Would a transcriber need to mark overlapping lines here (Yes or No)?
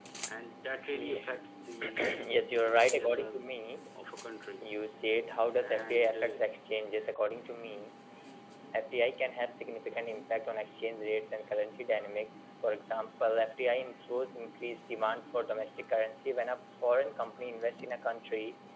Yes